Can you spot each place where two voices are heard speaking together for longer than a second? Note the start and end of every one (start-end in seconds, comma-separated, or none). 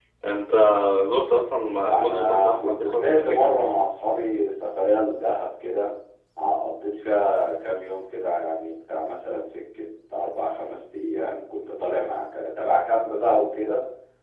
2.0-3.6